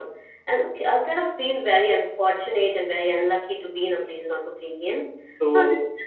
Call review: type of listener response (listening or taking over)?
listening